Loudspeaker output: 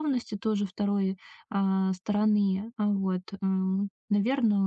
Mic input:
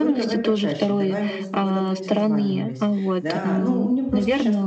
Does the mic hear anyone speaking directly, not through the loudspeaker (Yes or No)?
Yes